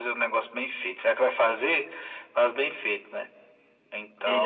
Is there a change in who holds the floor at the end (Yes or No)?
Yes